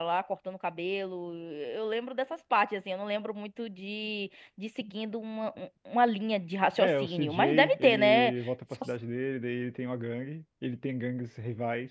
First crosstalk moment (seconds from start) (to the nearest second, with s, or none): 7 s